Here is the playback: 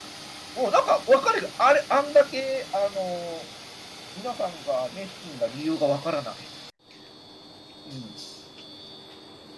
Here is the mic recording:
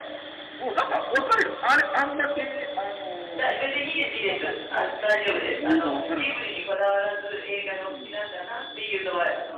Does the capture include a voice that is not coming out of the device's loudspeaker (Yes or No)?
Yes